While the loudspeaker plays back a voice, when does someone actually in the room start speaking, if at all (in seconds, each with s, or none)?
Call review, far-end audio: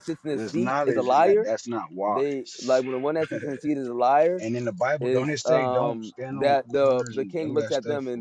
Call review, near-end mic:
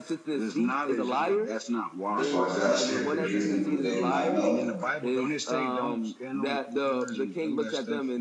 2.1 s